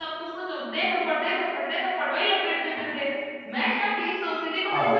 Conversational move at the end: listening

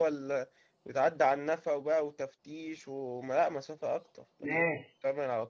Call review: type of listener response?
taking over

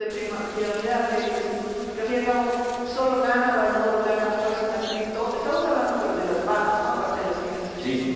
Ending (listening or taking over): listening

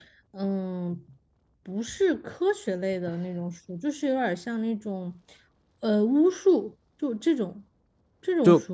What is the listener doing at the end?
taking over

